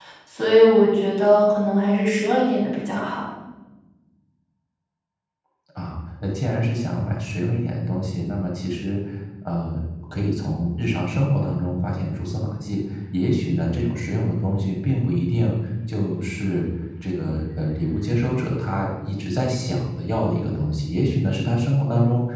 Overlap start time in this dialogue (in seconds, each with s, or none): none